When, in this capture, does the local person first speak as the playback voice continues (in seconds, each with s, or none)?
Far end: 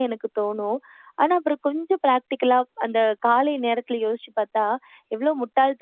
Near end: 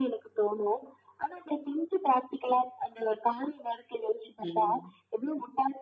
4.4 s